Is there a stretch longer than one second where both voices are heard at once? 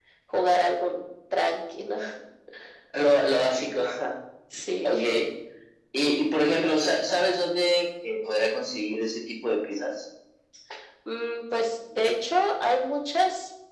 No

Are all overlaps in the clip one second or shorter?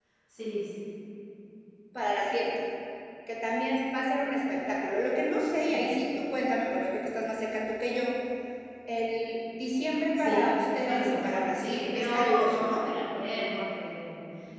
No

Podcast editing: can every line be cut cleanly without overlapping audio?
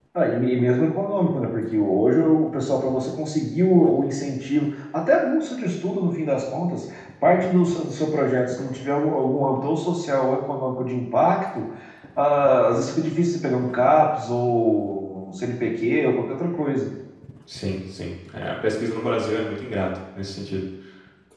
Yes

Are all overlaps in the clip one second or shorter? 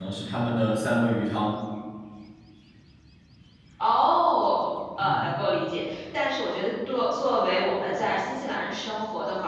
Yes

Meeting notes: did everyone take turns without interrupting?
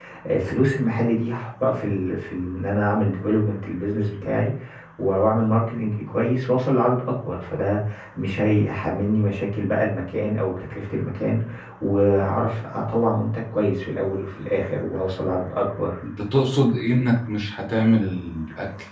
Yes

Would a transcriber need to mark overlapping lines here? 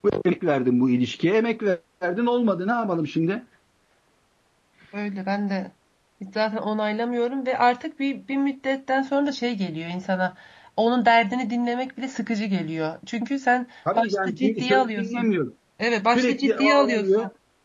Yes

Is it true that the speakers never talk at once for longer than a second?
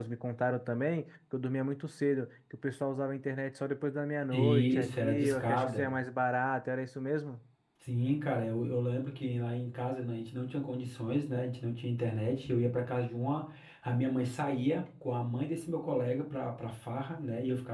No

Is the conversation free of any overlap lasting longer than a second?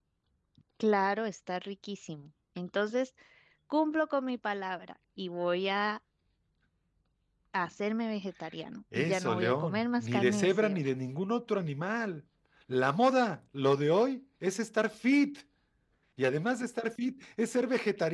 No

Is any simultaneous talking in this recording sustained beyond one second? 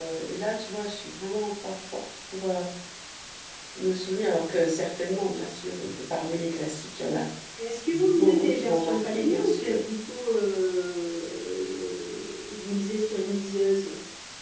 Yes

